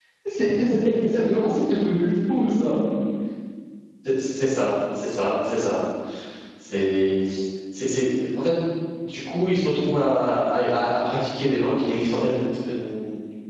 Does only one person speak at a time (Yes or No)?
Yes